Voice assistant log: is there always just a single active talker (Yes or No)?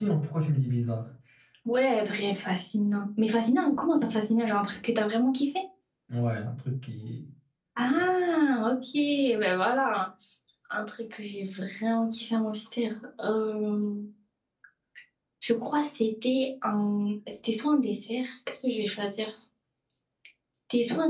Yes